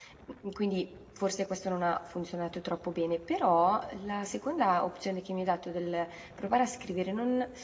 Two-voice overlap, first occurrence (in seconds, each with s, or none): none